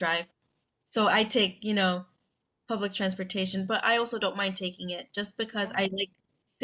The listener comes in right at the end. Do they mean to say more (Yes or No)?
No